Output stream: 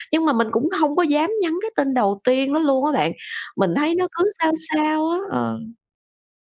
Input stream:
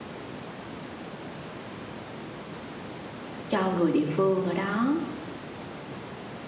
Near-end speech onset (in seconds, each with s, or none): 3.5 s